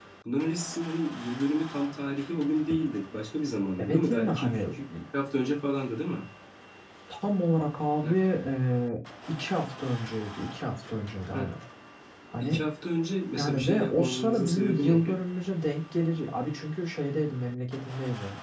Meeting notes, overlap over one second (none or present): present